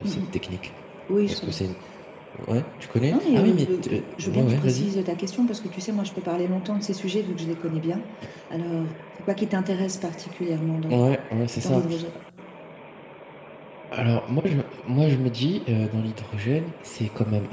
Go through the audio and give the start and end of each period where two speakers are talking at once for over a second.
3.1-4.9

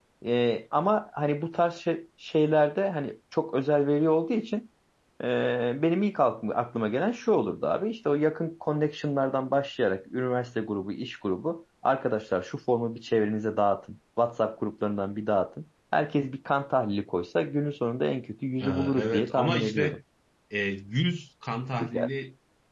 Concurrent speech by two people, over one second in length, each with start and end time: 18.6-20.0

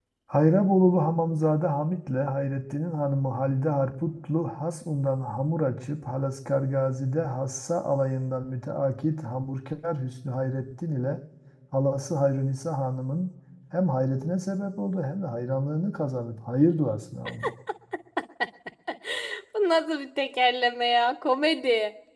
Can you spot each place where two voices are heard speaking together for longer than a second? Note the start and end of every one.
none

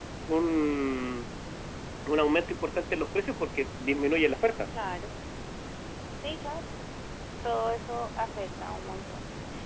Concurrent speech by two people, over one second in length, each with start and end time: none

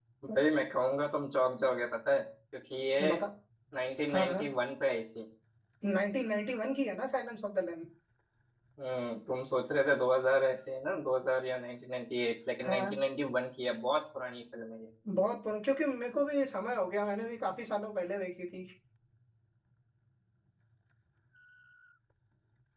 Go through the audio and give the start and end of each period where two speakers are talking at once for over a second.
none

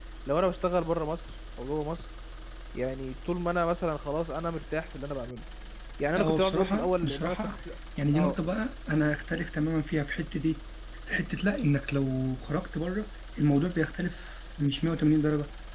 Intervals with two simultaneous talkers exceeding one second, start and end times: 6.2-7.5

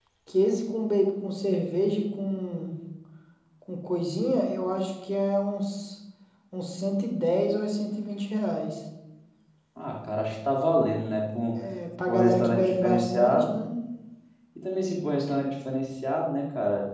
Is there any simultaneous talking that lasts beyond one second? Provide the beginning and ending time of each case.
12.0-13.5

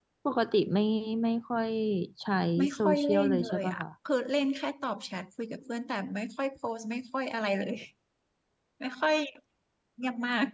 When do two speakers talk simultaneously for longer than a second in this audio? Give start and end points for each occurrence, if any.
2.6-3.8

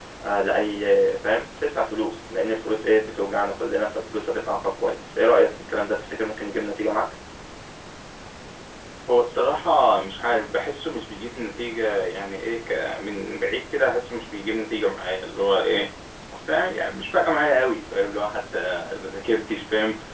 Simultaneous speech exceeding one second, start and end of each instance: none

